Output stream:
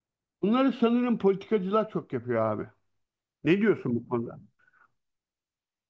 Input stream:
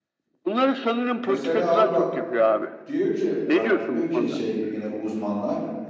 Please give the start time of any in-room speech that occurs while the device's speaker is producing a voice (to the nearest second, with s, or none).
1 s